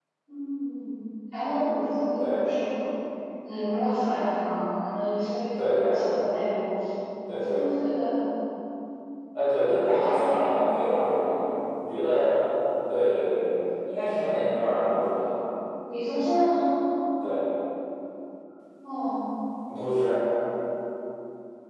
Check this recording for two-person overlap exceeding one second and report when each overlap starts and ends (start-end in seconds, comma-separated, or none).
none